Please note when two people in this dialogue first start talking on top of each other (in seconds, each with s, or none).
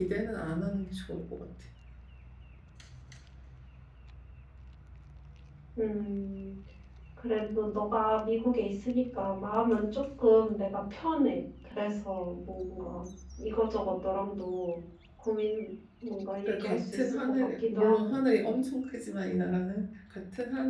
16.5 s